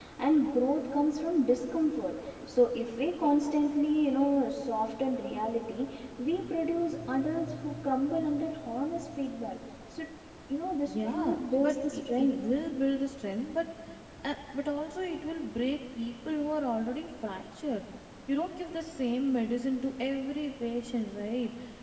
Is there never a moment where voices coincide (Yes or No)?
No